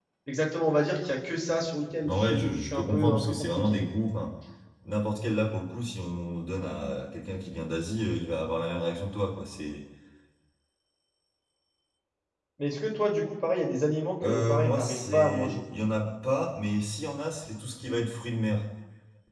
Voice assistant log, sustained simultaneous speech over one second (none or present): present